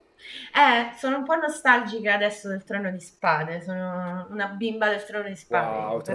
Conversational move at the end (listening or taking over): taking over